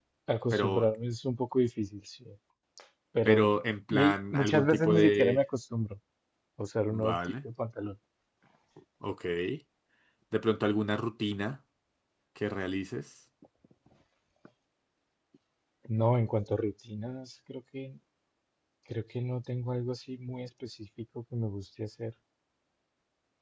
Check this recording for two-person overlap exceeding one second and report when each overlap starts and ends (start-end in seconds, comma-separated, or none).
3.9-5.4